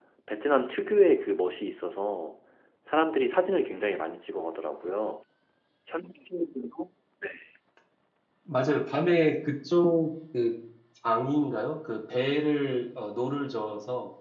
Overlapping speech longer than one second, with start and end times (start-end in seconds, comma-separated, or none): none